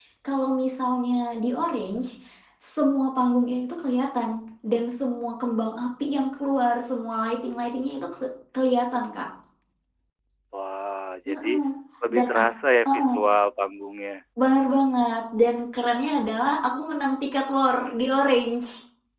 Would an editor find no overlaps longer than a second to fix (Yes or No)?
Yes